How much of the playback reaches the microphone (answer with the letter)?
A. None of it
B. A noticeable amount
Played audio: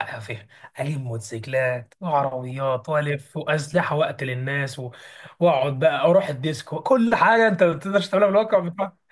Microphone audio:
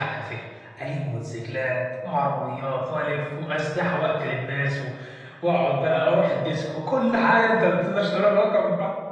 B